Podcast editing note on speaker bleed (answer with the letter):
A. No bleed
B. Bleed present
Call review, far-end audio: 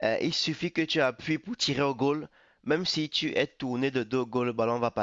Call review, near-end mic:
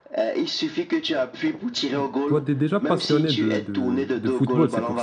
B